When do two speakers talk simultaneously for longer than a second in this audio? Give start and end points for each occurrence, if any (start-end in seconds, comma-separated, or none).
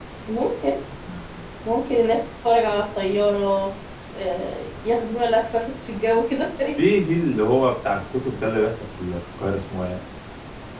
none